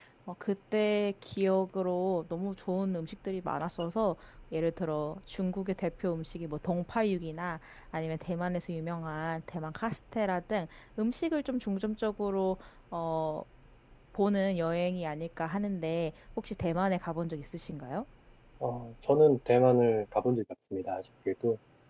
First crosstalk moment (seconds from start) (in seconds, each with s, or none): none